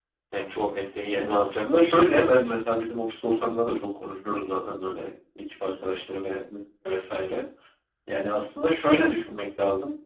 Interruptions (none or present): present